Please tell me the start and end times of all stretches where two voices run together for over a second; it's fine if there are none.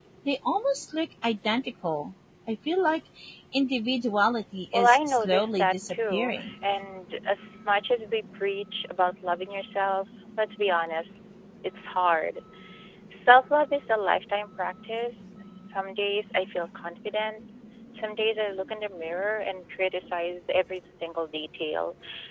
4.7-6.5

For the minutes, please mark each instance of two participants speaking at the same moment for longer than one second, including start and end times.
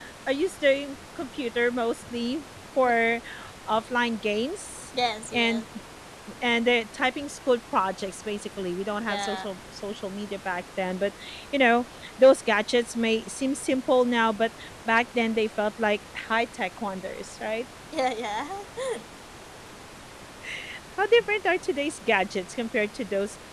none

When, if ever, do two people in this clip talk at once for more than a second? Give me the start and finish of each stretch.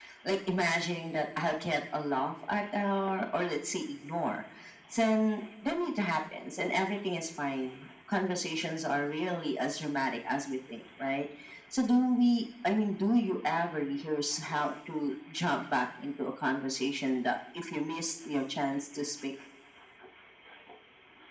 none

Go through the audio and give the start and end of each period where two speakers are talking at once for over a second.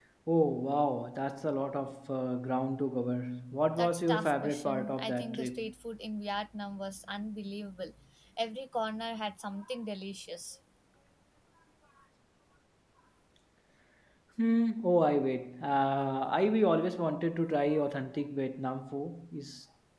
3.8-5.6

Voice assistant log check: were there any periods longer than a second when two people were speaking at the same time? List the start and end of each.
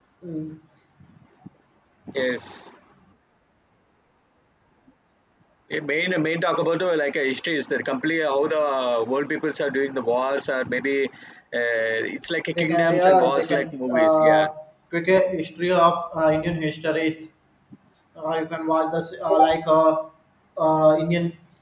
12.5-14.5

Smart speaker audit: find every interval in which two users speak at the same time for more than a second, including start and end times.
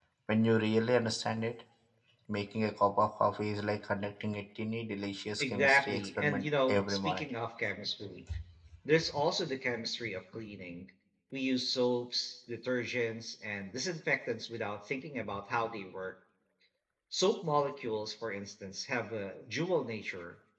5.4-7.3

